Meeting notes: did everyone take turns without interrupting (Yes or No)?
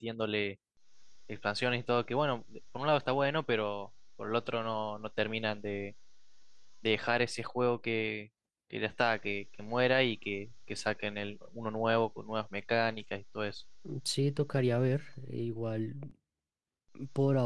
Yes